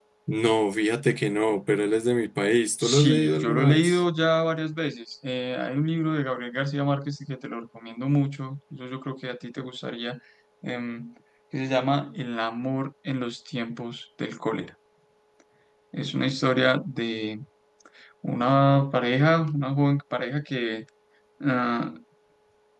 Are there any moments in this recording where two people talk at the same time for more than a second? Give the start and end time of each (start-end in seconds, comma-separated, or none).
2.8-4.0